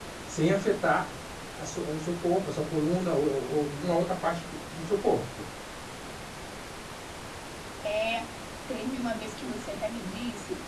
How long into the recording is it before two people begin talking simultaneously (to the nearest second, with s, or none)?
none